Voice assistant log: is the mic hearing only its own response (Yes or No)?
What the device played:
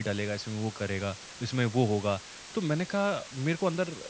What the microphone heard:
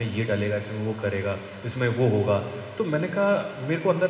Yes